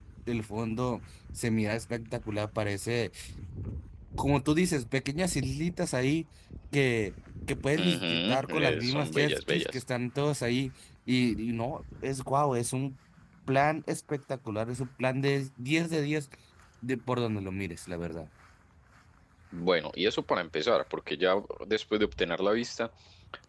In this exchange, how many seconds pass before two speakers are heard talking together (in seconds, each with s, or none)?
7.8 s